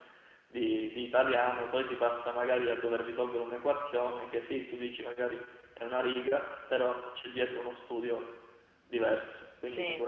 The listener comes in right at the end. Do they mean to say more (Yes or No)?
Yes